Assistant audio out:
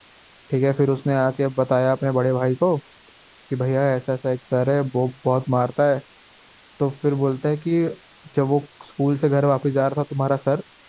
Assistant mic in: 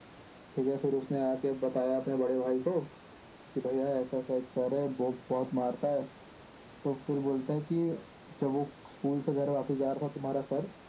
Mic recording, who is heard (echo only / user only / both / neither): echo only